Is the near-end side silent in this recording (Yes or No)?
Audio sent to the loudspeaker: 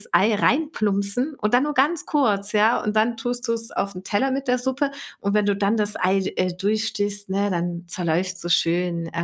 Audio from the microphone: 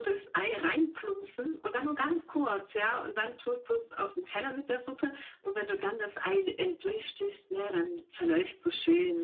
No